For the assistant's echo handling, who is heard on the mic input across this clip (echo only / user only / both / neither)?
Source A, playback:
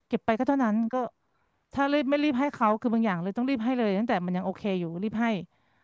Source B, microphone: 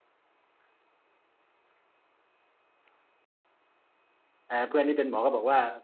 user only